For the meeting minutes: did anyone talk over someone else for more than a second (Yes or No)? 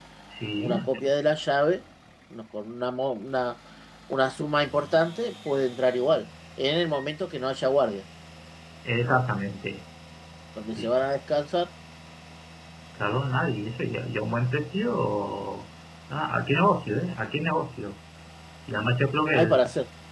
No